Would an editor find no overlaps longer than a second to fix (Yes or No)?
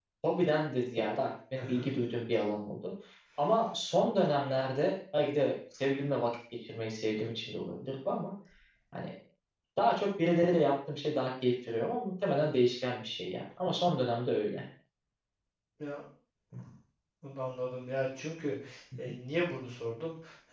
Yes